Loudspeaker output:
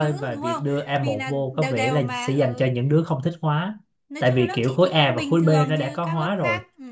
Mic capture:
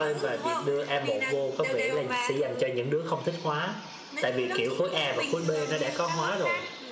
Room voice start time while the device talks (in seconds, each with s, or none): none